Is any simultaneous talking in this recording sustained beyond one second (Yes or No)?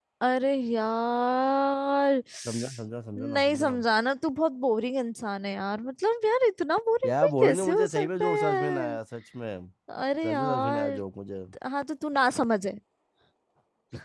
Yes